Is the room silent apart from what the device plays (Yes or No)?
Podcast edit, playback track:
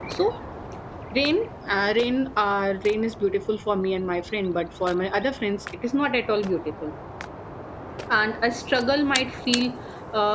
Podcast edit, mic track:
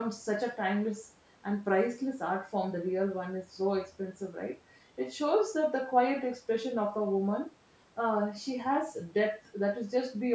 No